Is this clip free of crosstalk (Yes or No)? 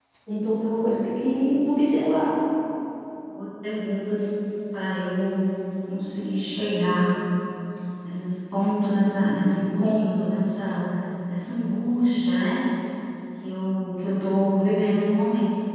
Yes